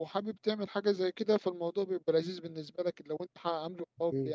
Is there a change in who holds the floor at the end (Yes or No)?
No